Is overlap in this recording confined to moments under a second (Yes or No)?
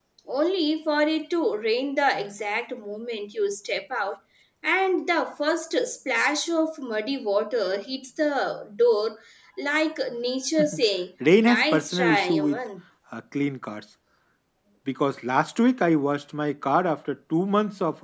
No